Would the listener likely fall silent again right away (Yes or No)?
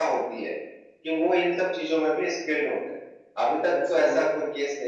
Yes